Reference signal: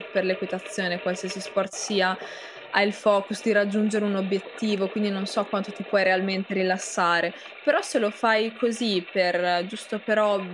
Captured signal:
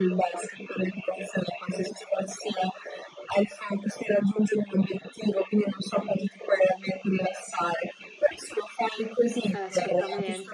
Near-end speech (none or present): present